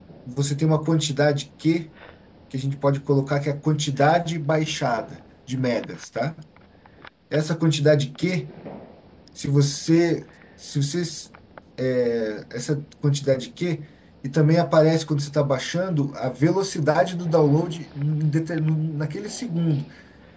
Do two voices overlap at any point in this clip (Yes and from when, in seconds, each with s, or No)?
No